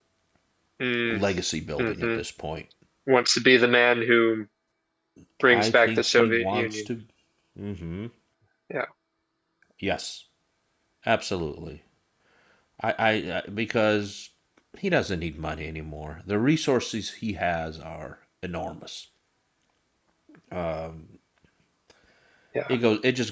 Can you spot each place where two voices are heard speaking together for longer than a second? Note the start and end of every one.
5.5-6.8

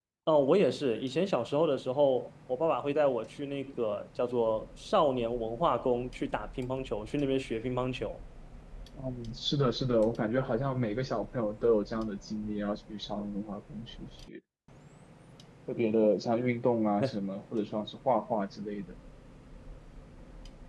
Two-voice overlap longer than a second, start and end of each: none

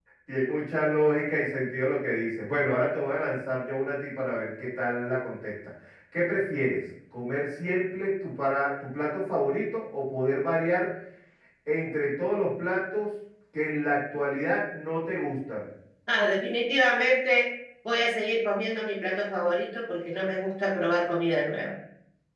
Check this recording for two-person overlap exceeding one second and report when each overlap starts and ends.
none

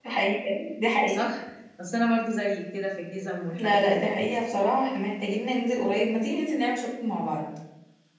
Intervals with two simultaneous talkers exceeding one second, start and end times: none

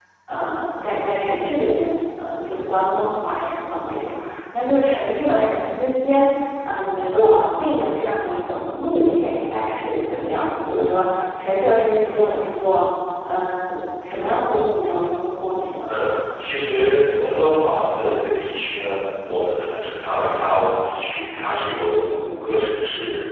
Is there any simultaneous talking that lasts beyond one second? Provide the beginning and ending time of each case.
none

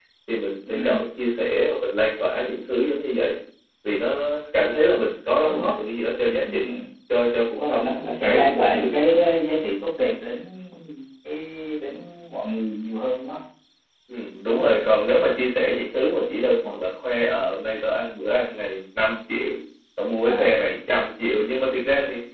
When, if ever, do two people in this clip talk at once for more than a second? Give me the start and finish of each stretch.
7.5-8.9

